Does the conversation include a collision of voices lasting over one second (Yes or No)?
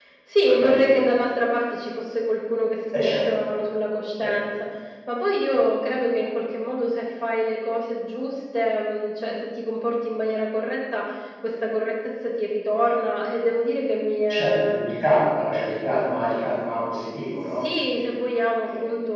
No